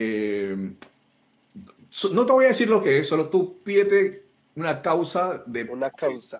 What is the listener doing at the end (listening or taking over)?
listening